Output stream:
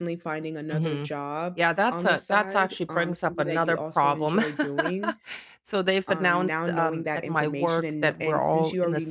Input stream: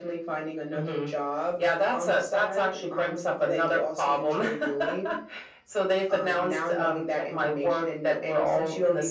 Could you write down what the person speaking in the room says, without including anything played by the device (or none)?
none